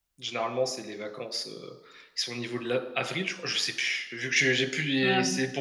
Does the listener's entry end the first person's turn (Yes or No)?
No